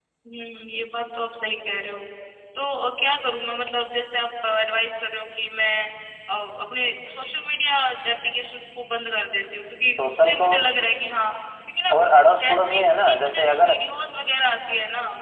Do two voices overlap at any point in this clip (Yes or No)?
Yes